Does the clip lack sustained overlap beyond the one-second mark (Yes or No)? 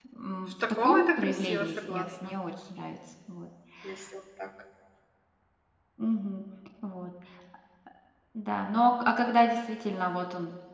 No